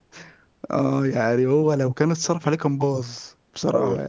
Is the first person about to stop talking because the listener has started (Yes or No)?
Yes